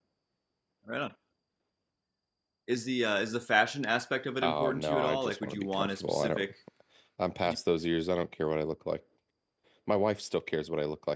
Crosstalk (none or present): present